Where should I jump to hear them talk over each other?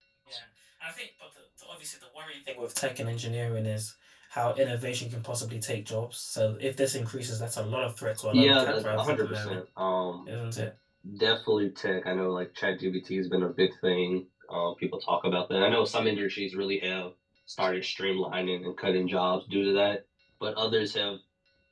8 s

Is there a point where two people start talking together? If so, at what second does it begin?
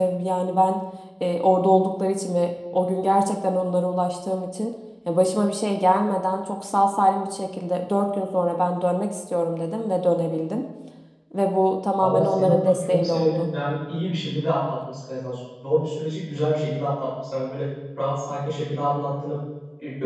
12 s

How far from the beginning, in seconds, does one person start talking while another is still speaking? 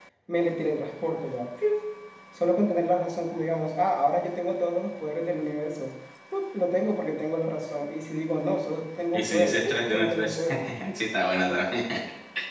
9 s

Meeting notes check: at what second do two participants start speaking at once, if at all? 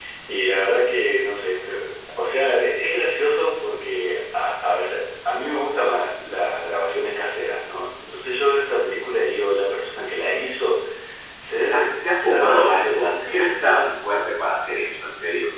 12 s

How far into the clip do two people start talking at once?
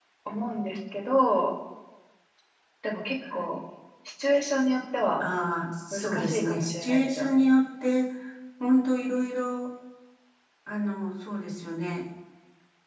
6 s

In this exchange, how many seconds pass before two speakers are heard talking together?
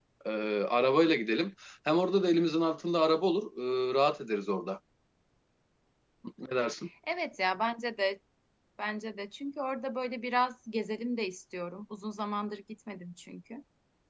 none

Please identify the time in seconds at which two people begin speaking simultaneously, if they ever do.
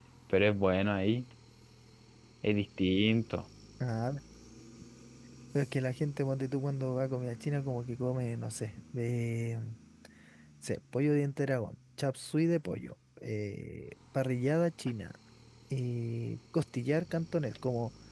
none

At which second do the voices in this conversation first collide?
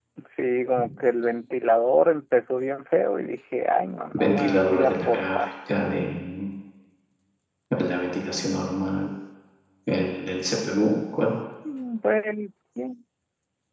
4 s

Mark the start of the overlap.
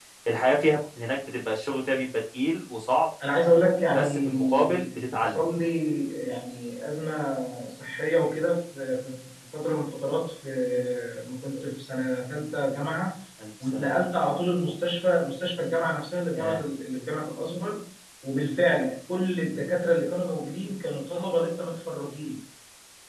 4 s

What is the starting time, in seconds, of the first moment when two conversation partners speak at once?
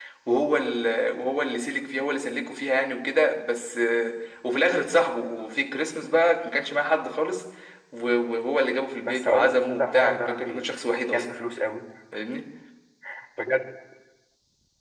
9 s

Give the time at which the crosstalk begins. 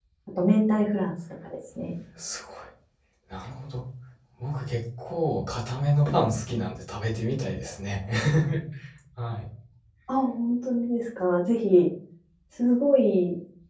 none

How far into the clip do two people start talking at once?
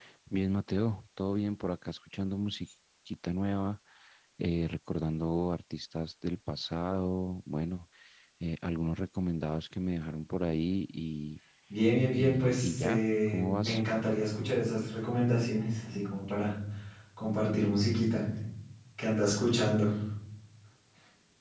12 s

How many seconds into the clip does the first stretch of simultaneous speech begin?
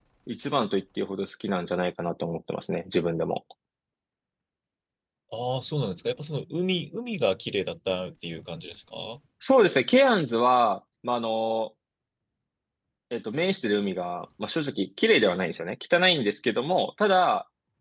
none

